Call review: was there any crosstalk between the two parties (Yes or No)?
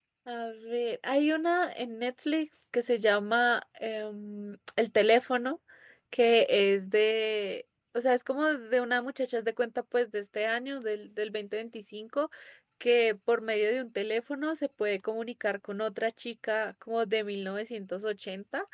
No